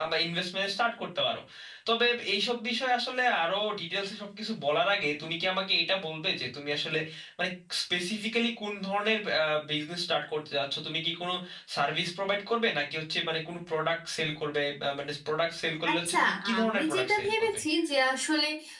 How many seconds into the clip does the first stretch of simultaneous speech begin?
15.8 s

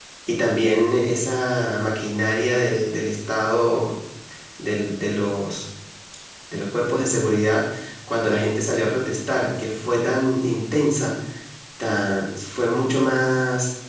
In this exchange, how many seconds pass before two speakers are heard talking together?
none

